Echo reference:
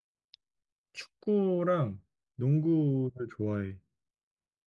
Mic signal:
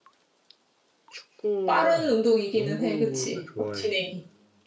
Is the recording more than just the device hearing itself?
Yes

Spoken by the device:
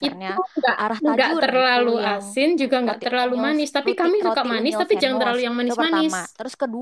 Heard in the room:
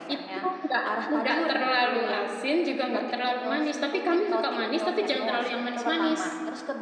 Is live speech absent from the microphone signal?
Yes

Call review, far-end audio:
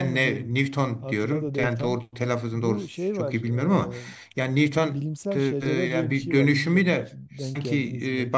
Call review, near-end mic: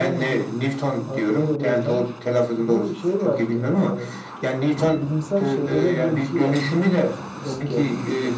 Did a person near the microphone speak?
No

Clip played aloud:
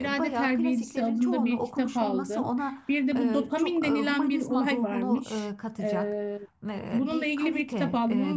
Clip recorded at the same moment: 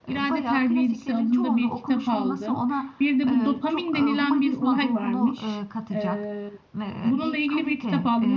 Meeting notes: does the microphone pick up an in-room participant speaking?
No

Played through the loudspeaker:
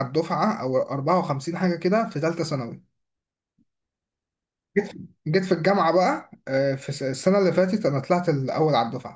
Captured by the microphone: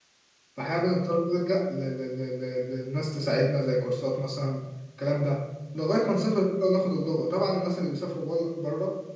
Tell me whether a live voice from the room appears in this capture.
Yes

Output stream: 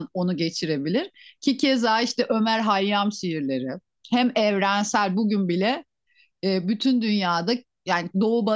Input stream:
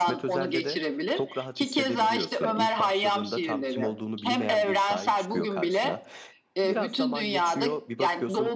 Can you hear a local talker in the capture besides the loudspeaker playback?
Yes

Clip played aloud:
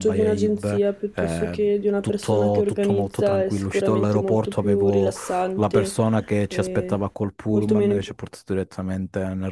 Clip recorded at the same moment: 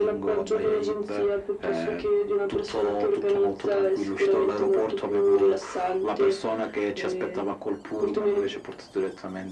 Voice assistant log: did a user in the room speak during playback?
No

